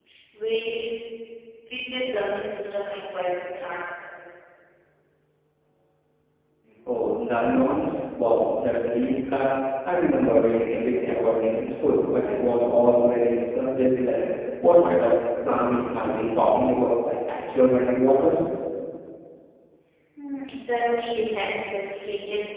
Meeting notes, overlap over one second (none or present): none